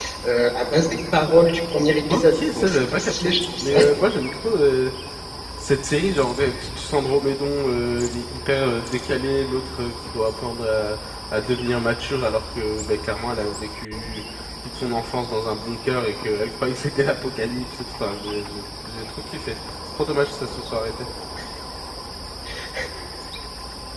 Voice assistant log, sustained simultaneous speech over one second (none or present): present